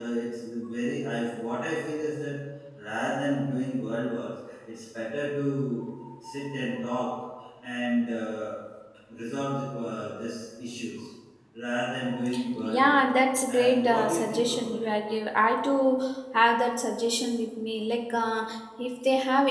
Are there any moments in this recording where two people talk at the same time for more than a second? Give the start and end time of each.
13.5-14.7

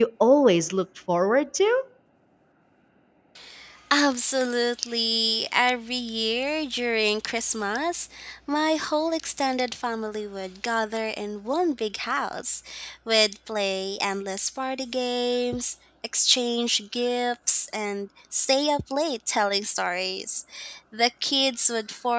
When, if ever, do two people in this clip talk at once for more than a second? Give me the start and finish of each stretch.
none

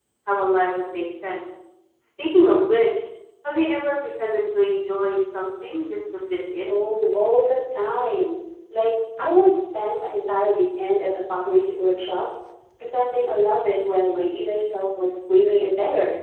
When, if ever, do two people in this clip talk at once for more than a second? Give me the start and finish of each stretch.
none

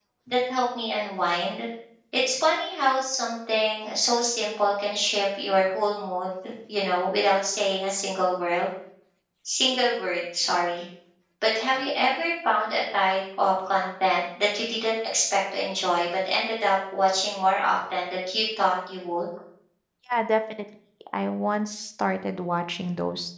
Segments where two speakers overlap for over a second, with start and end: none

